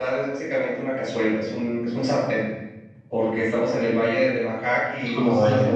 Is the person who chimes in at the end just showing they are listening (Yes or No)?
Yes